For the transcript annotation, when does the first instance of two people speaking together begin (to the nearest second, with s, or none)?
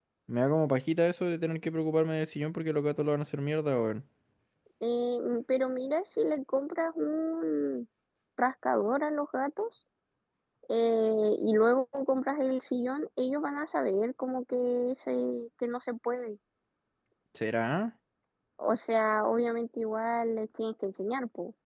none